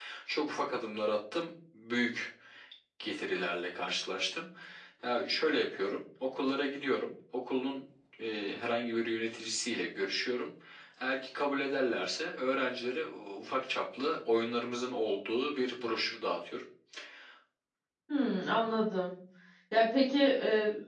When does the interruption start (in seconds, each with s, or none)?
none